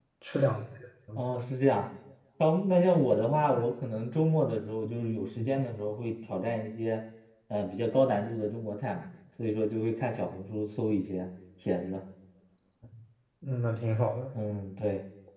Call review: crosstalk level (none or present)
none